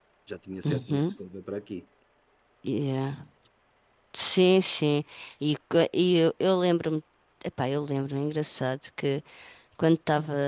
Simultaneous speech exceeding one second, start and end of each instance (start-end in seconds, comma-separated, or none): none